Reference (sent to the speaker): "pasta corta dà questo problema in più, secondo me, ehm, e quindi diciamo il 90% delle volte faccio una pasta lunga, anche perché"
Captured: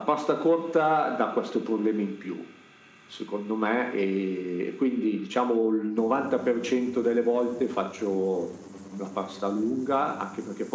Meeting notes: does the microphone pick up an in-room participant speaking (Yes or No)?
No